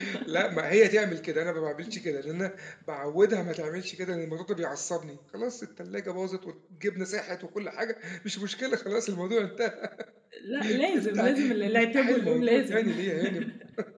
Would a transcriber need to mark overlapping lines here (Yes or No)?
Yes